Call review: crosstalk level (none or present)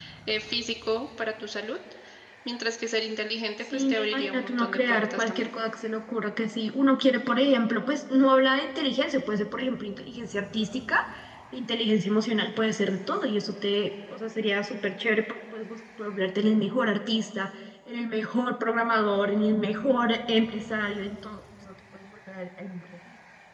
present